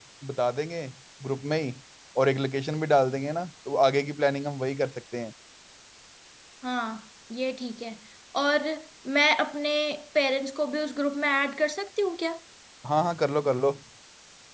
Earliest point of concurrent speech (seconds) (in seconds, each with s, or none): none